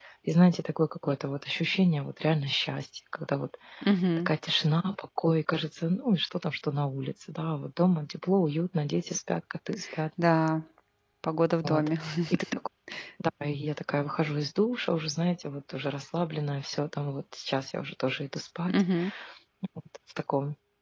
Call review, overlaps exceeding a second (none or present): none